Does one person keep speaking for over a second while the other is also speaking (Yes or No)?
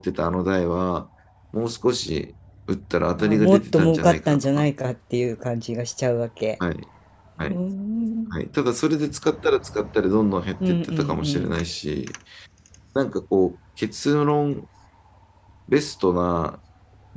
Yes